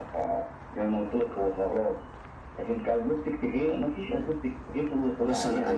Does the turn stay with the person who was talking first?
No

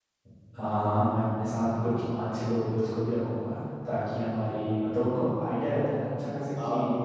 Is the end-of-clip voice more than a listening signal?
No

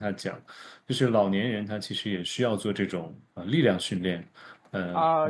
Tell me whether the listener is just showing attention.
No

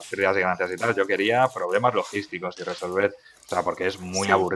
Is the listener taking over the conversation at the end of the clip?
No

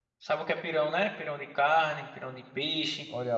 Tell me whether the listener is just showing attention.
No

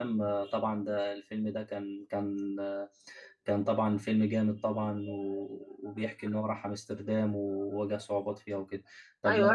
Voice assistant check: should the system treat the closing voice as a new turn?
Yes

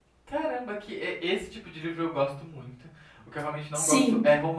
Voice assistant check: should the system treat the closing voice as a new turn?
No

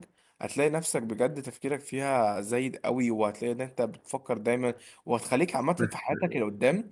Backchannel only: Yes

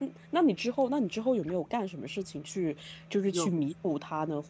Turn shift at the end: No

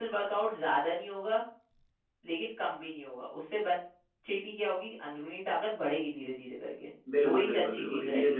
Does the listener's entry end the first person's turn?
Yes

